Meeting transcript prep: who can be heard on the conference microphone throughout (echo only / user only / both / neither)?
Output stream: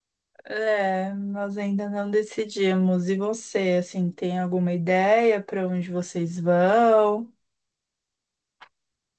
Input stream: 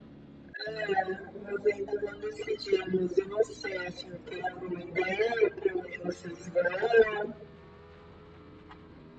echo only